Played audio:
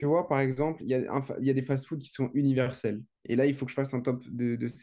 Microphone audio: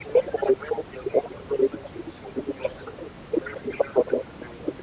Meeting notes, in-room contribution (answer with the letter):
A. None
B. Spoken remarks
A